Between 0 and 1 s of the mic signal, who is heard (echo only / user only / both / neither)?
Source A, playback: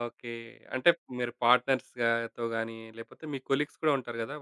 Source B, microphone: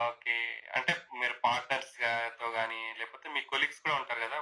echo only